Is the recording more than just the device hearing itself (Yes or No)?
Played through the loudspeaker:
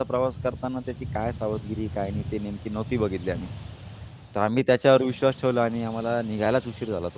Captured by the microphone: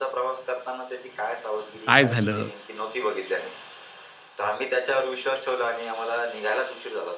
Yes